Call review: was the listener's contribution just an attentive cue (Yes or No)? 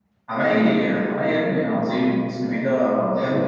Yes